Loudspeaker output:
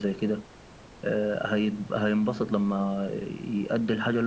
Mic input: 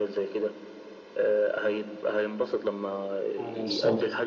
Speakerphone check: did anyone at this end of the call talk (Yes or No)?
Yes